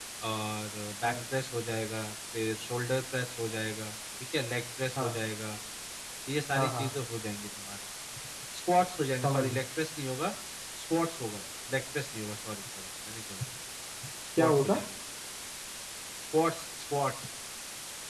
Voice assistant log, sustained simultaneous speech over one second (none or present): none